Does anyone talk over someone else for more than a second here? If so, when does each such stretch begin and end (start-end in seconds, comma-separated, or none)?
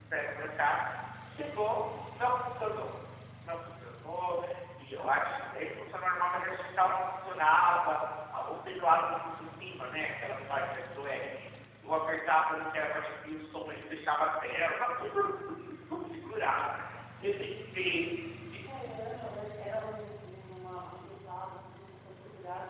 none